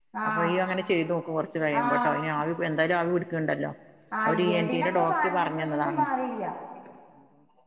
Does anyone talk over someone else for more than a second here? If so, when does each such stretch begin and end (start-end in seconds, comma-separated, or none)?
4.2-6.0